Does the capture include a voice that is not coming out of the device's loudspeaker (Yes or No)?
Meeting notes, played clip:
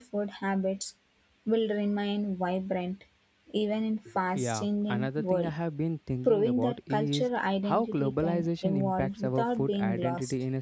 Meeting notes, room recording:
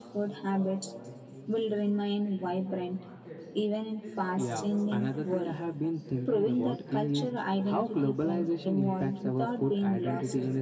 Yes